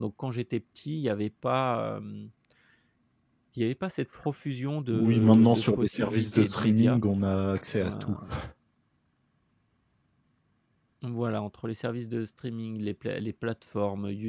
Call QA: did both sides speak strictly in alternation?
No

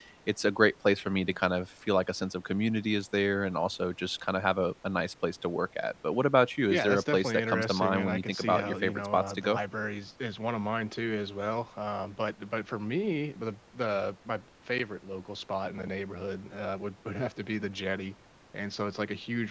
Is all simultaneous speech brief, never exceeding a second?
No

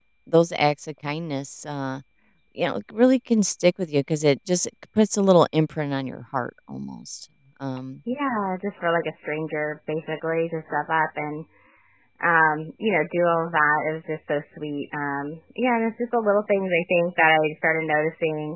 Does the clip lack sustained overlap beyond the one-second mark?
Yes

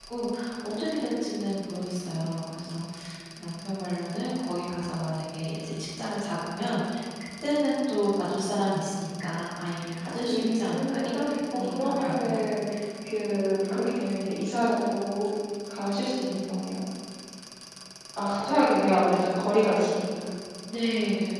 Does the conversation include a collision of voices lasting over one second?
Yes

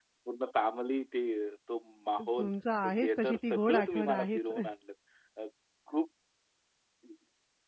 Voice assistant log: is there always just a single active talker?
No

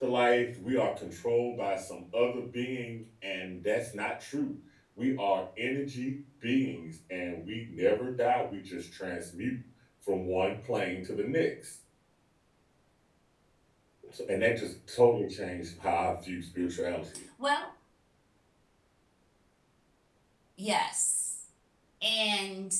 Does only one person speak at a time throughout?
Yes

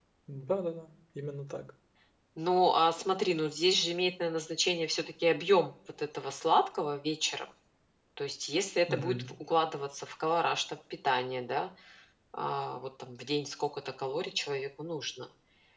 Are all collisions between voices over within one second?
Yes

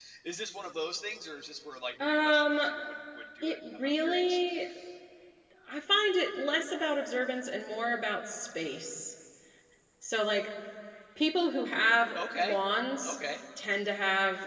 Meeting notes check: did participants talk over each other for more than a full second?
Yes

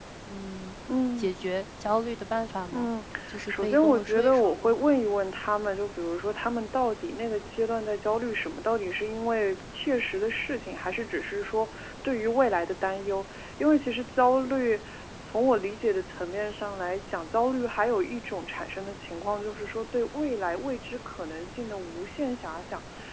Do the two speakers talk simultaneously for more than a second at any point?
Yes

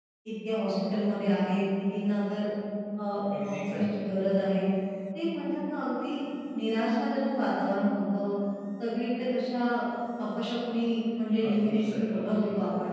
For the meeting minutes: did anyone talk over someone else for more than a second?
Yes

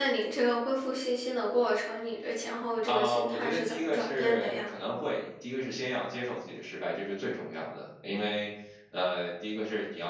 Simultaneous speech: Yes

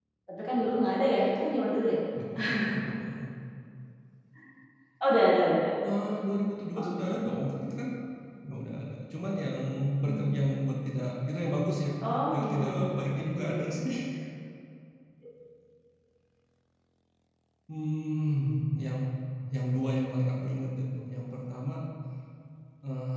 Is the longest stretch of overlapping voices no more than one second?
No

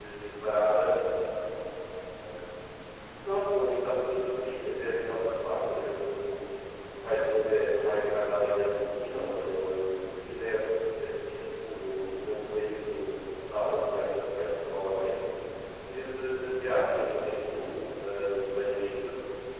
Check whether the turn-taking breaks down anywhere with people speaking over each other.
No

